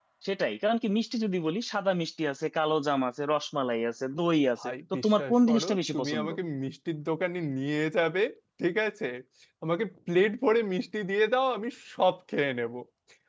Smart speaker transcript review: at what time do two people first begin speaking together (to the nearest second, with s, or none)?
5 s